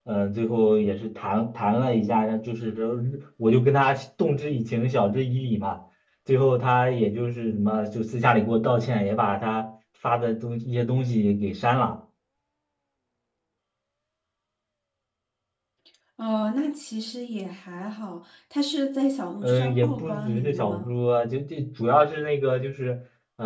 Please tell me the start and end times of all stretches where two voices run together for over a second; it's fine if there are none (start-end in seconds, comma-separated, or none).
19.4-20.9